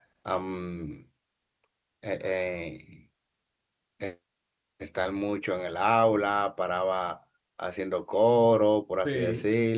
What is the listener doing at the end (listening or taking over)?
listening